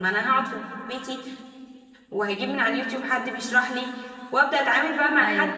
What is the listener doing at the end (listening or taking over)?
listening